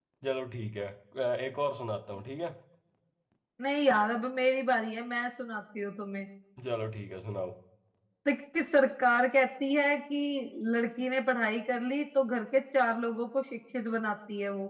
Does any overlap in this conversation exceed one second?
No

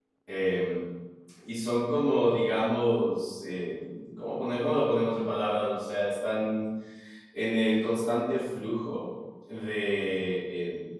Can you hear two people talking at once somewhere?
No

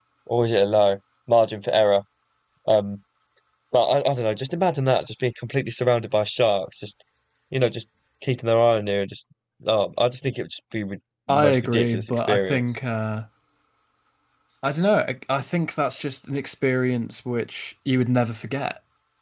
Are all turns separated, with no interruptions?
No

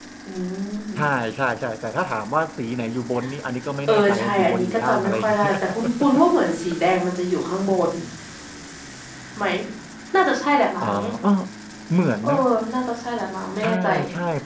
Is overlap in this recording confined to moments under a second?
No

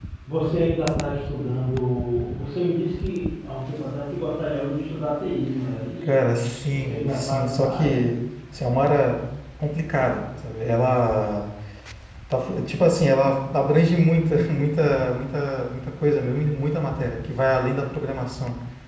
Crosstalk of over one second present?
Yes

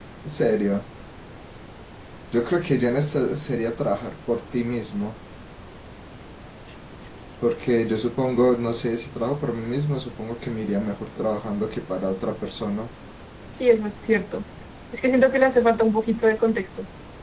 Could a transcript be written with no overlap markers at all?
Yes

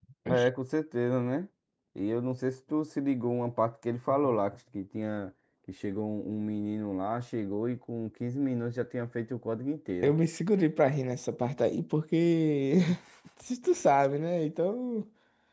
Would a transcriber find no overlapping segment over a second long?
Yes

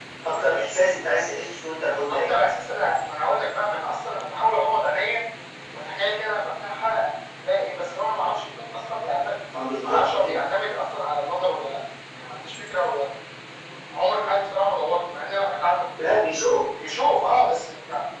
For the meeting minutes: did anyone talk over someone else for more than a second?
No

